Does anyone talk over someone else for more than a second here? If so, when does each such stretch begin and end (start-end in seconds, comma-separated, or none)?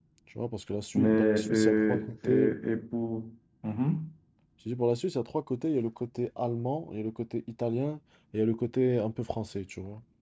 0.9-2.5